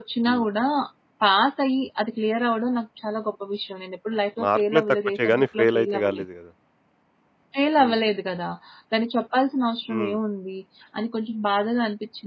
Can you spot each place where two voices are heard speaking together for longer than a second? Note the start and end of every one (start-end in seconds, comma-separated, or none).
4.4-6.2